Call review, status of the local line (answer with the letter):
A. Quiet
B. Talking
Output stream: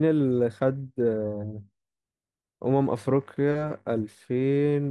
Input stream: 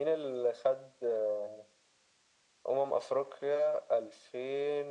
A